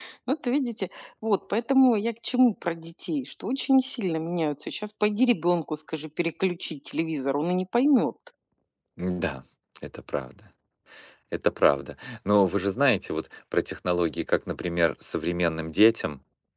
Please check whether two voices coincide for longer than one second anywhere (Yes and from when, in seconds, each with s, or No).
No